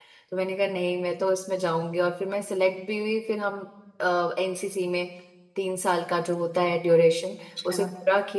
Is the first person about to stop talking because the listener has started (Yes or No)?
No